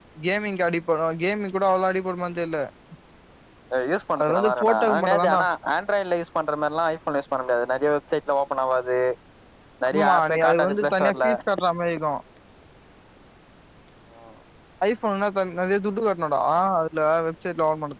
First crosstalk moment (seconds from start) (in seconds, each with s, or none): 4.2 s